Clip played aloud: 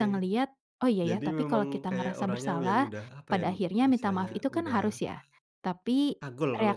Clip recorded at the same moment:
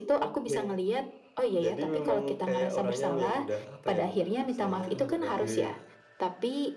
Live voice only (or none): Oke.